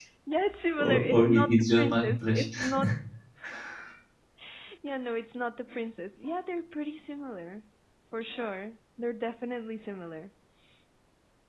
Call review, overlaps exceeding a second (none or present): present